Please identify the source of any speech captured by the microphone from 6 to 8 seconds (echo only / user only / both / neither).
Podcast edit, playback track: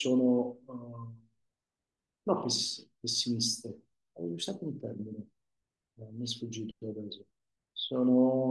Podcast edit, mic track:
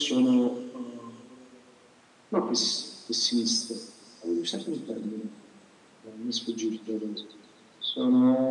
echo only